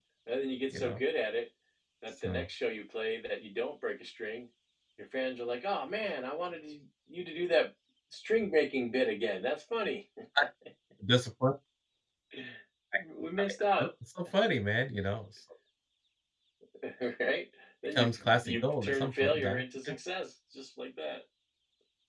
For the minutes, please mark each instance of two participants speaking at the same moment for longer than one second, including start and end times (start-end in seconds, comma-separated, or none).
17.9-19.9